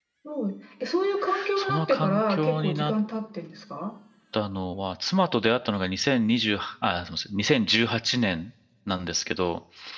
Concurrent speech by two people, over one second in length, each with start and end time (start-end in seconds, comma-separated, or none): 1.6-2.9